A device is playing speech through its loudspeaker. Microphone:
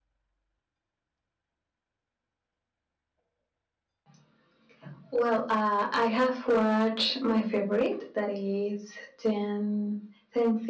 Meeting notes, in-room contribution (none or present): none